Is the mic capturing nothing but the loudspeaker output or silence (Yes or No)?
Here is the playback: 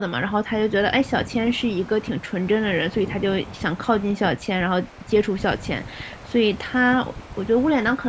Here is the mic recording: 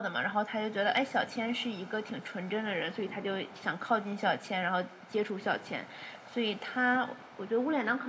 Yes